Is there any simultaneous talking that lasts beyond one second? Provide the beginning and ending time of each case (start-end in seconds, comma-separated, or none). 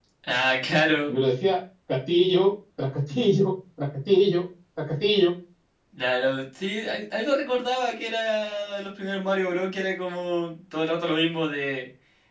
none